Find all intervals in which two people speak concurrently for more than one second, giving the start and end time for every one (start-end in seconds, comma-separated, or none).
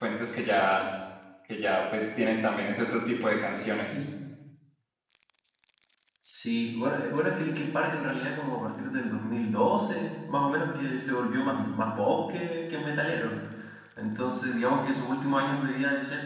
none